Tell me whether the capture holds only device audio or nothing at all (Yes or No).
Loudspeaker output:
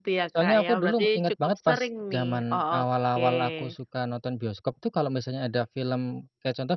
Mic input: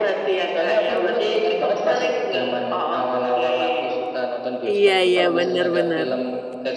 No